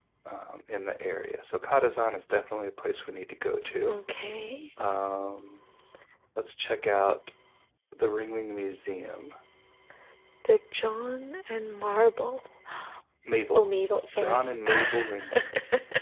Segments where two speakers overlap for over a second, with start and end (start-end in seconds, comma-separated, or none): 14.2-15.5